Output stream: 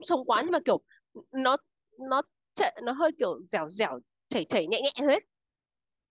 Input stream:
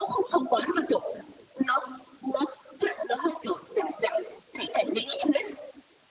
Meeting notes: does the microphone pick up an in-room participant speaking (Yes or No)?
No